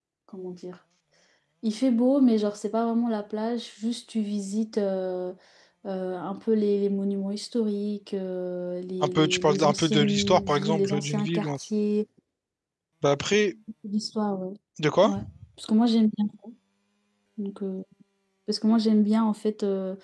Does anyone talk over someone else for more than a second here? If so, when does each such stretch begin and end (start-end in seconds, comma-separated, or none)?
9.0-11.7